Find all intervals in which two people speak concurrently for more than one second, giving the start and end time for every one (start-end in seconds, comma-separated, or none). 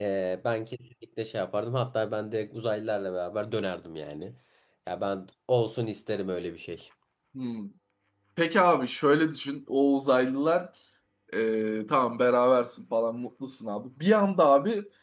none